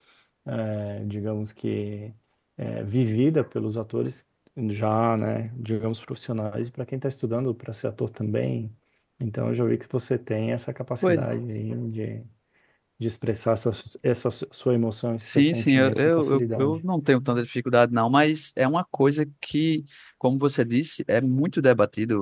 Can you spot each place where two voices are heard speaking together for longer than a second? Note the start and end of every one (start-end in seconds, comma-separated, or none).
15.2-16.8